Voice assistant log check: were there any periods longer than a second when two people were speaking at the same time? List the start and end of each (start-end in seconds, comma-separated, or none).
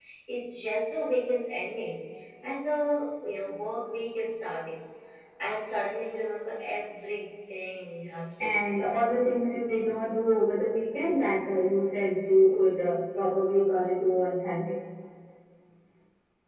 none